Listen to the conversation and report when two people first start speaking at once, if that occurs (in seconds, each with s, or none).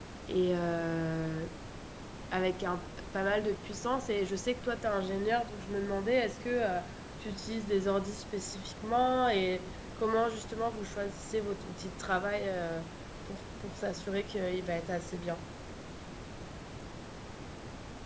none